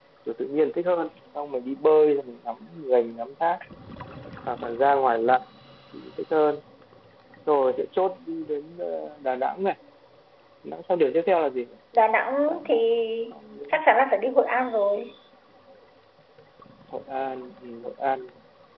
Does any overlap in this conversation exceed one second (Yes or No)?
No